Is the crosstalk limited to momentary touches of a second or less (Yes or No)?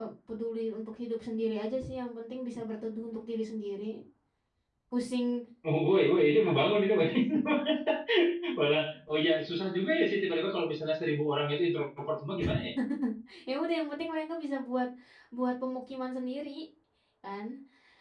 Yes